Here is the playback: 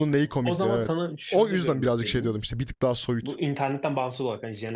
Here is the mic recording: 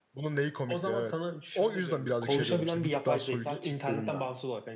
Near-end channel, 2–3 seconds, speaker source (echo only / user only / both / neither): both